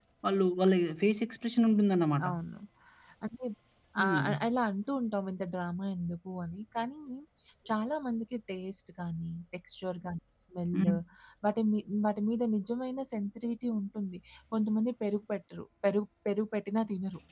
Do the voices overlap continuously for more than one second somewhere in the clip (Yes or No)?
No